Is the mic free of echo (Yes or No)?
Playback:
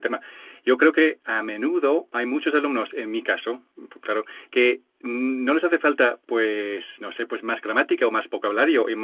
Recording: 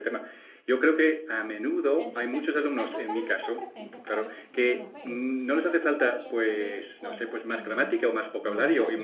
No